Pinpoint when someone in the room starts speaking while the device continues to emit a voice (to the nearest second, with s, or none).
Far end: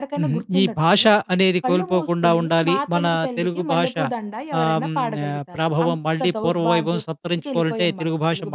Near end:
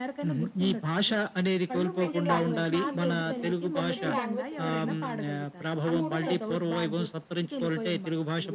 2 s